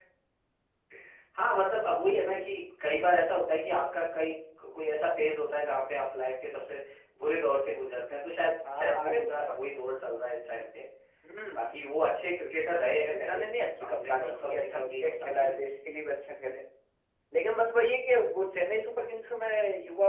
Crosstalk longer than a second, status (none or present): present